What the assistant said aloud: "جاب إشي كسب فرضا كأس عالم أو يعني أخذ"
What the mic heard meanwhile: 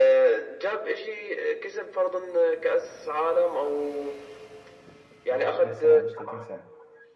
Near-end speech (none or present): present